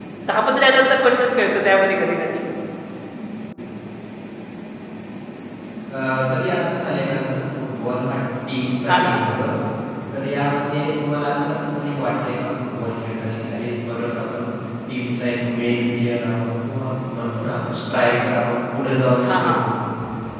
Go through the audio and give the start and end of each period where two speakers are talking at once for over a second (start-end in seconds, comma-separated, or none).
none